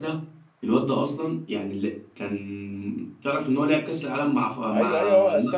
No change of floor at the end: No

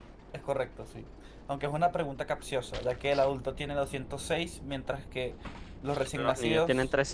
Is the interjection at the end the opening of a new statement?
Yes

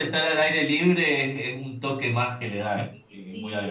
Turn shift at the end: Yes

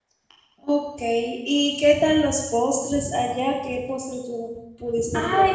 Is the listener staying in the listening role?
No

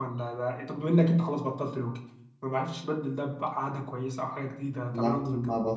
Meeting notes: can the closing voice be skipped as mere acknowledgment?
No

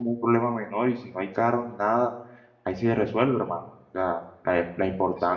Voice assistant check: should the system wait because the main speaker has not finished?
Yes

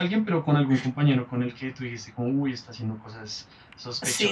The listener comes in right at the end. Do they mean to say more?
Yes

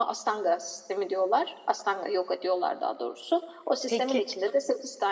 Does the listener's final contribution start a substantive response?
No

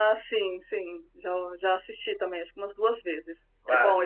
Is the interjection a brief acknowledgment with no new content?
No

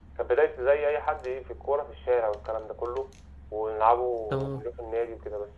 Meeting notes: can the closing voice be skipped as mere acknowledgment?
Yes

